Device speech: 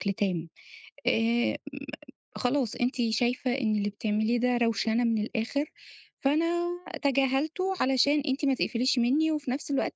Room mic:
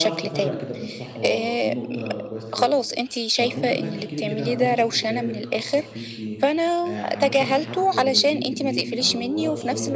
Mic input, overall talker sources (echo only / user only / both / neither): both